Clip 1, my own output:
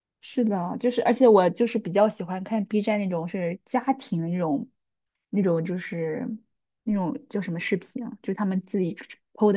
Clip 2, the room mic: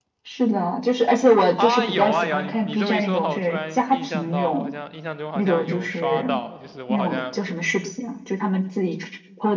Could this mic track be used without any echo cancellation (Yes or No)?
No